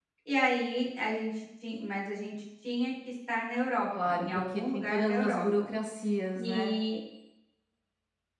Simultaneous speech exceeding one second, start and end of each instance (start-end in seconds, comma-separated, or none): 4.0-5.5